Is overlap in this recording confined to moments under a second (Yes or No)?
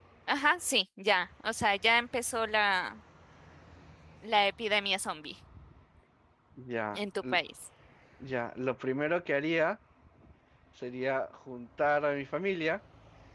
Yes